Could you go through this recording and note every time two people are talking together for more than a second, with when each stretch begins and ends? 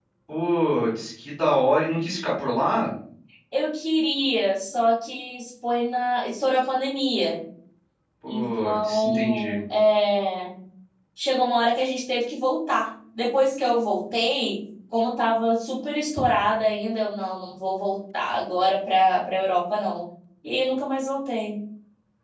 8.3-9.6

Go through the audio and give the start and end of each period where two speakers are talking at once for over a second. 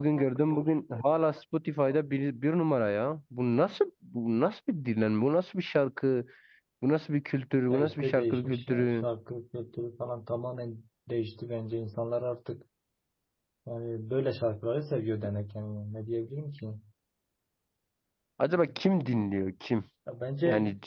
7.7-9.1

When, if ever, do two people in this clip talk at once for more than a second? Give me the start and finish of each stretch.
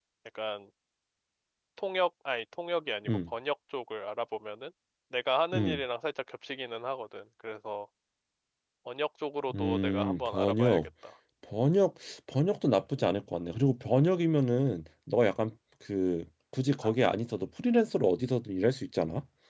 9.5-10.8

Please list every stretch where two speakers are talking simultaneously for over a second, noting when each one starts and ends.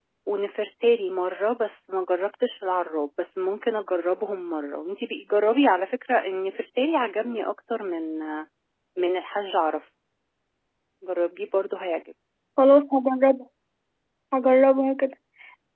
none

